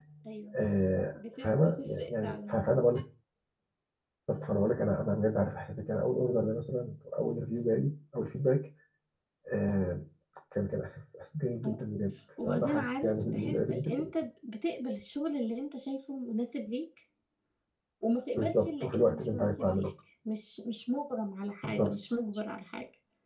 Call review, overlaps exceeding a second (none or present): present